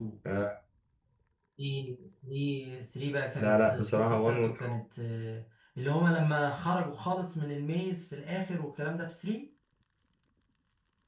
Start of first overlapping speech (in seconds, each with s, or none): 3.4 s